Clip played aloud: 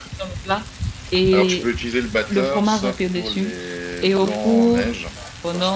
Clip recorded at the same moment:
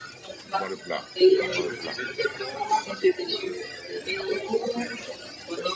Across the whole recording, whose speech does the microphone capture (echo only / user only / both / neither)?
both